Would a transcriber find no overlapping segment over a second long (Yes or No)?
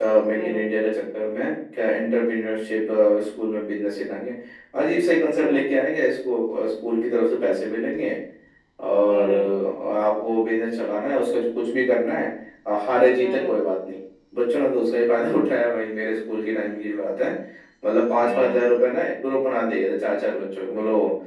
Yes